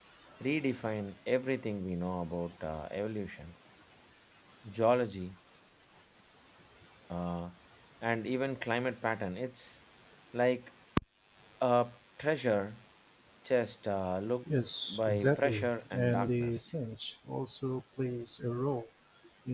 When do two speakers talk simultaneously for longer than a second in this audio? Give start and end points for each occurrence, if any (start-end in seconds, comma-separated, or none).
14.9-16.6